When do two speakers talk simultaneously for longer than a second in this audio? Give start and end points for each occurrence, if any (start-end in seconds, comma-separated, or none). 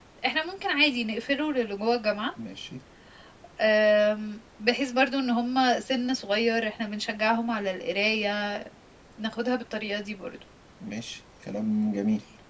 none